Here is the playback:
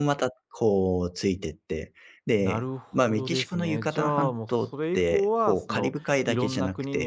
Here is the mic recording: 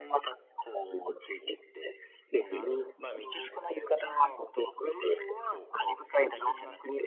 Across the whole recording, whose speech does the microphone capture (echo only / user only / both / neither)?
echo only